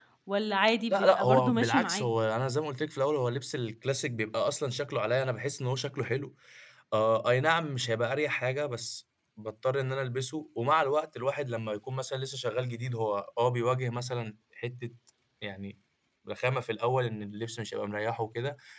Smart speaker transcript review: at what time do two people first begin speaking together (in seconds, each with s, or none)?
0.9 s